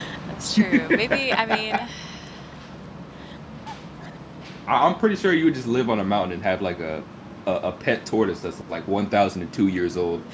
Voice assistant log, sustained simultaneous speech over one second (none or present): present